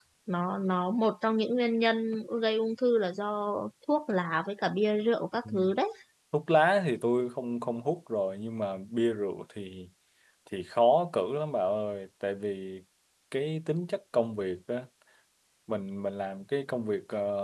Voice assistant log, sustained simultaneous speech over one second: none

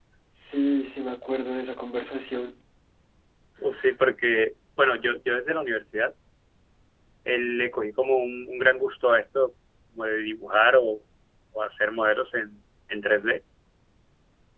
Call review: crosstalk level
none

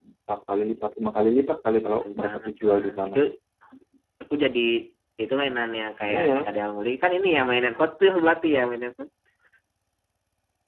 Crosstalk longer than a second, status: present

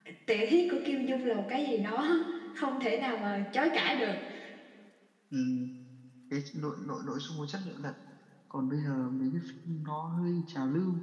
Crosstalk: none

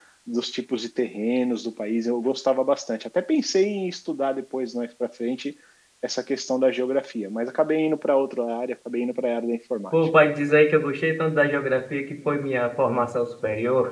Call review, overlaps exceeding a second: none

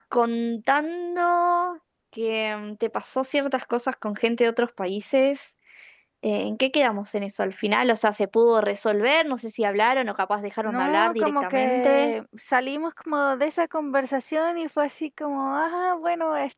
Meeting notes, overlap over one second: present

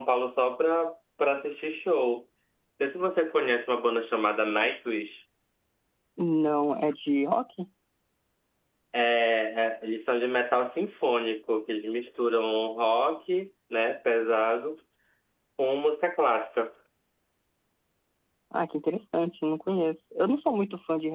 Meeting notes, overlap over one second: none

